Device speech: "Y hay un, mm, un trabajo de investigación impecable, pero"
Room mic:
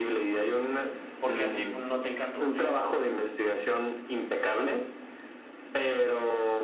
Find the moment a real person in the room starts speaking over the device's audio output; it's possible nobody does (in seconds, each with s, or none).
1.2 s